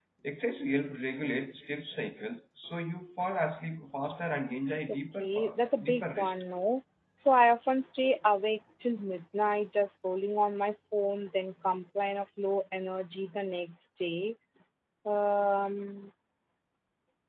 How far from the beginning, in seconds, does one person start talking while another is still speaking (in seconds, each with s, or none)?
4.9 s